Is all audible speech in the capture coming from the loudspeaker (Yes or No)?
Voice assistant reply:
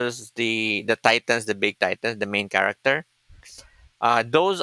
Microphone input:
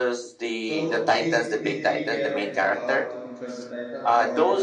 No